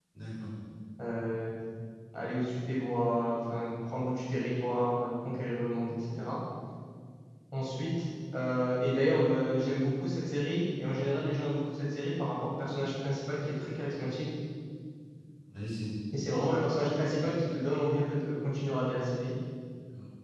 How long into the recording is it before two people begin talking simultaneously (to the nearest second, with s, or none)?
none